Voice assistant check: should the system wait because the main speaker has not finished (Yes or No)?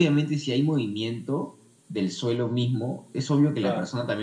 Yes